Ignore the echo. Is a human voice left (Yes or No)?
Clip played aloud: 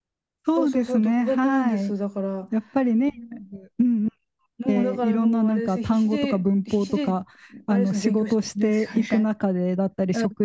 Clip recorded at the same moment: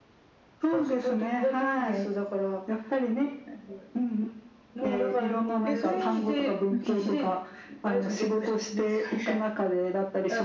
Yes